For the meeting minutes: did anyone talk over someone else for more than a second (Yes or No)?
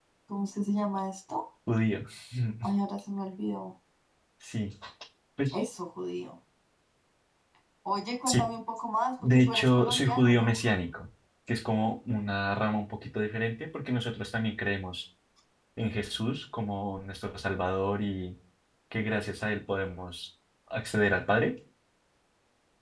Yes